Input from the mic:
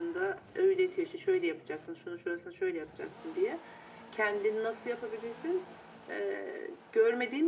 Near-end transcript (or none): none